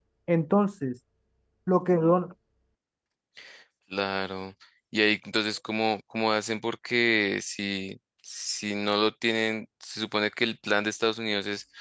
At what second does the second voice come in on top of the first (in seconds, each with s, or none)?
none